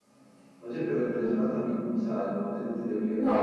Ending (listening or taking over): taking over